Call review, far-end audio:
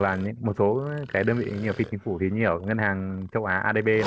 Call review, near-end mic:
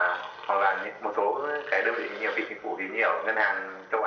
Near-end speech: none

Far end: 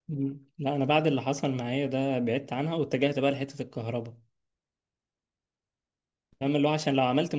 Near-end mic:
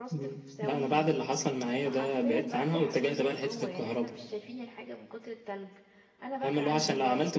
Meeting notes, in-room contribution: present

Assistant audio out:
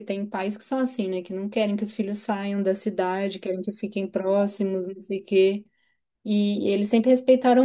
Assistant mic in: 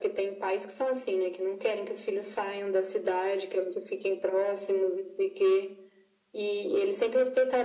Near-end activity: none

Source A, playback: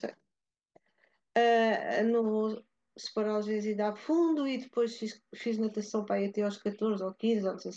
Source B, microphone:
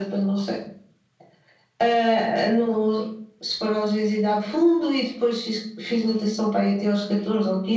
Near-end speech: none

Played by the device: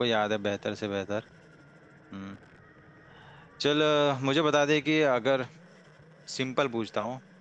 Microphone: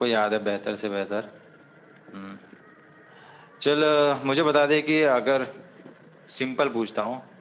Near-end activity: none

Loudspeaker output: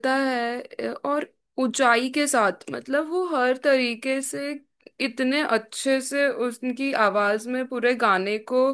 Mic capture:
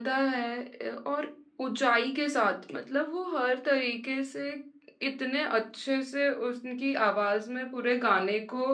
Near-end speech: none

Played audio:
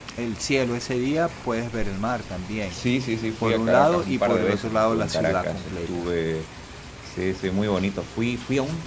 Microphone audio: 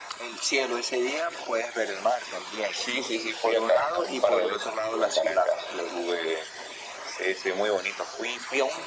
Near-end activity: none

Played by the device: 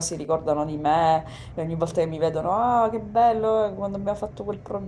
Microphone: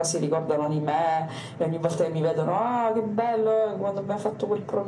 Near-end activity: none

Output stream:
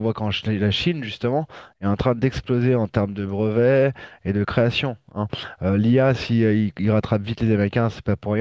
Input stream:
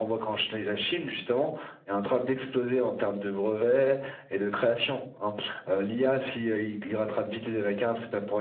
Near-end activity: none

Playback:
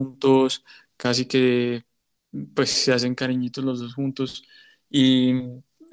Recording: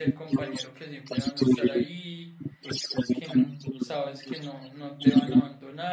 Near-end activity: present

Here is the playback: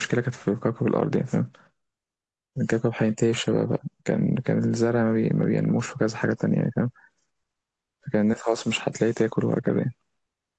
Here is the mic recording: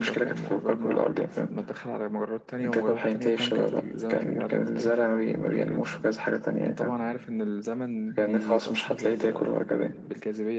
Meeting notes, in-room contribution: present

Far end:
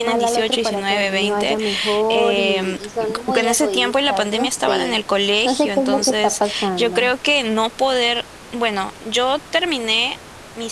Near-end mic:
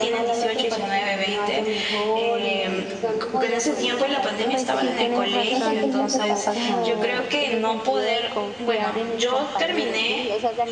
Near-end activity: present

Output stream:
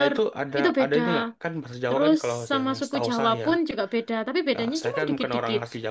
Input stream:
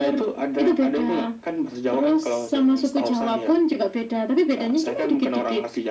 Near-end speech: none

